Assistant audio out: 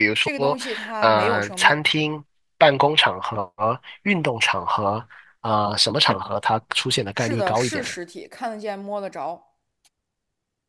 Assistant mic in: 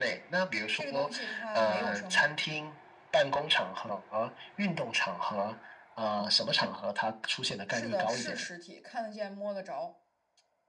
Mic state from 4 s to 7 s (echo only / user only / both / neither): echo only